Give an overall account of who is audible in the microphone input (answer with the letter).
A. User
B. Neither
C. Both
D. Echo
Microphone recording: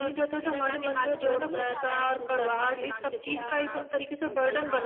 C